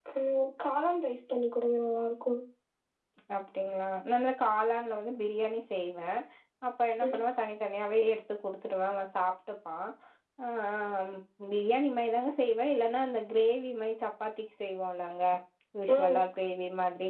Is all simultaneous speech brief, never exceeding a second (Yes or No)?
Yes